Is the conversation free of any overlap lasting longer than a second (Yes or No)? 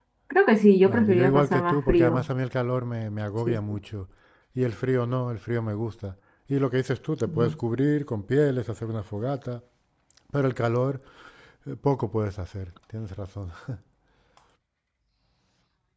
No